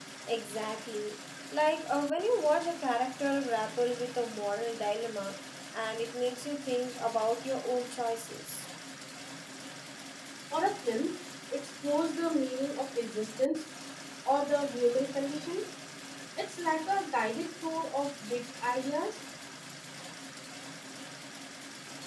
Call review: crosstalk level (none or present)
none